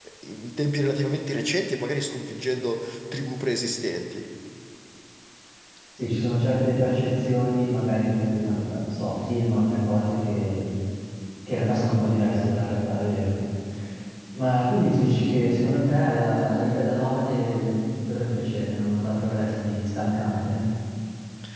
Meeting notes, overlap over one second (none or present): none